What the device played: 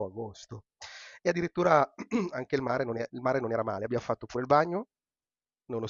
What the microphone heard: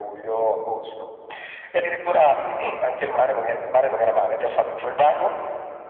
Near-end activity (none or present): none